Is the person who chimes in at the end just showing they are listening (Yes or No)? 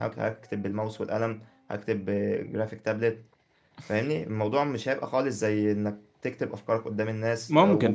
Yes